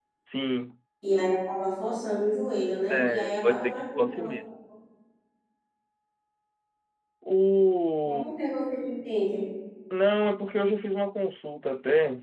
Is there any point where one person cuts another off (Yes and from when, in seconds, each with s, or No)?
Yes, from 2.9 s